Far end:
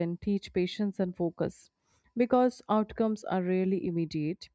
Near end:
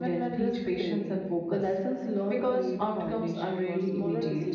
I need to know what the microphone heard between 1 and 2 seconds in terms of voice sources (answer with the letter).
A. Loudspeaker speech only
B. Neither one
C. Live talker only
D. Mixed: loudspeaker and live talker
D